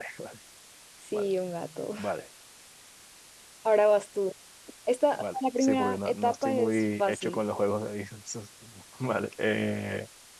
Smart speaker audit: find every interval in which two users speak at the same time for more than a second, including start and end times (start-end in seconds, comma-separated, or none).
5.2-7.4